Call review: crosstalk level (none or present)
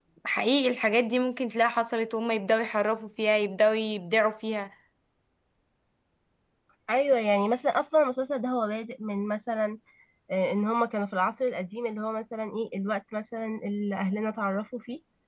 none